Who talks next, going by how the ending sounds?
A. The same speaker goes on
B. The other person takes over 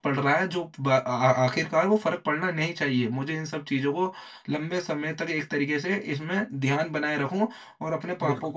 A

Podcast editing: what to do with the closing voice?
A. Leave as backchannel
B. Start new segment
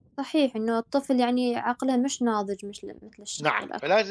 B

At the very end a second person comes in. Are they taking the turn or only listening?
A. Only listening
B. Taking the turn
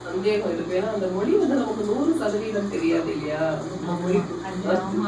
B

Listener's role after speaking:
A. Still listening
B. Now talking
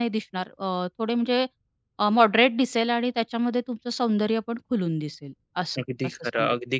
B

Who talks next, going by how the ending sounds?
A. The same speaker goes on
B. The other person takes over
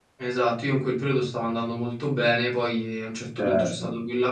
A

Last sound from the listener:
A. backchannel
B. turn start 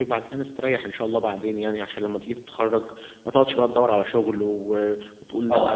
B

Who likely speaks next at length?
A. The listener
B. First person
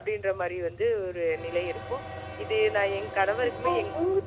A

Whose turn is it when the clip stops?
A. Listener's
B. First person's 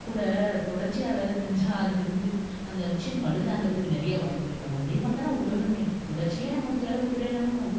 B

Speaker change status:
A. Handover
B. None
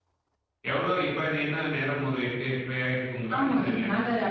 A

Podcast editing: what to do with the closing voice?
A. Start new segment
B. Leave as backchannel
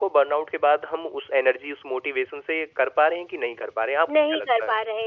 A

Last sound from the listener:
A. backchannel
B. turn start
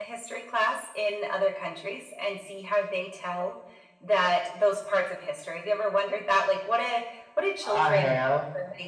A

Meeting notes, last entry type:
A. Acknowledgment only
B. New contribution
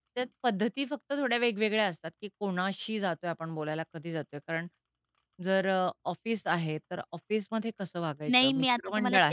B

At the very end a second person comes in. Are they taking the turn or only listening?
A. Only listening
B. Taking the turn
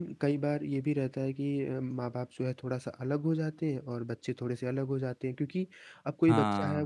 A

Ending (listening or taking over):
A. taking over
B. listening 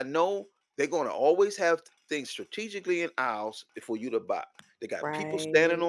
B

